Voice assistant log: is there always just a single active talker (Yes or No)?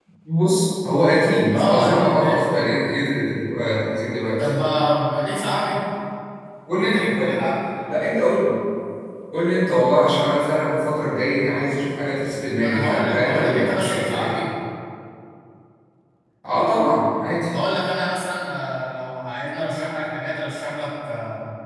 No